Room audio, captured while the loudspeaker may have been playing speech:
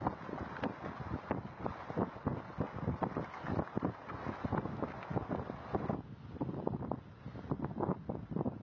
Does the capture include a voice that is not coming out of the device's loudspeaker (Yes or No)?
No